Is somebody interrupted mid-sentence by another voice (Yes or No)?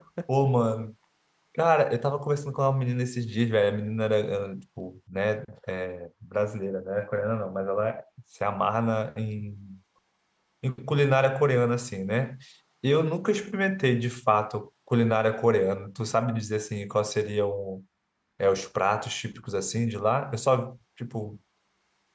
No